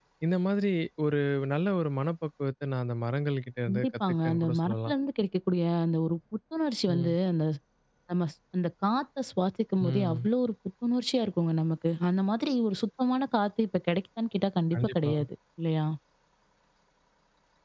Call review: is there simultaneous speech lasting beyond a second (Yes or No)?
Yes